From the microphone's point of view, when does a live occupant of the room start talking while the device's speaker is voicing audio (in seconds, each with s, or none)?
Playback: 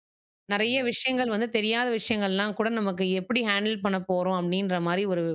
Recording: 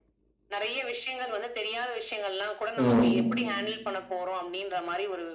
2.7 s